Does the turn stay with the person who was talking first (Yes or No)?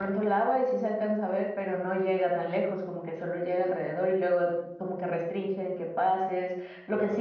Yes